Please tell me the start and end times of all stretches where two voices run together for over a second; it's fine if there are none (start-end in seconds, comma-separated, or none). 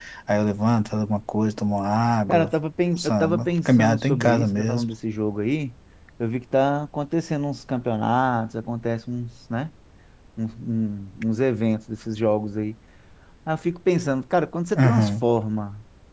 3.0-4.8